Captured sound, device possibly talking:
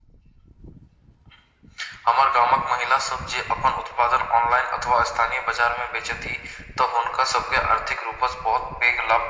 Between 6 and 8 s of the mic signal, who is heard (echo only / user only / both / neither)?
echo only